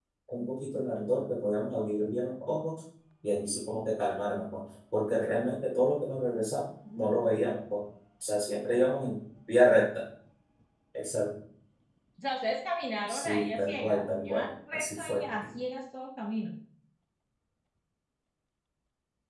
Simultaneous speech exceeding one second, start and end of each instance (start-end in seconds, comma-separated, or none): 13.1-15.2